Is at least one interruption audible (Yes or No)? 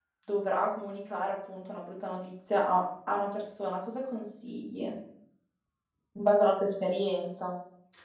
No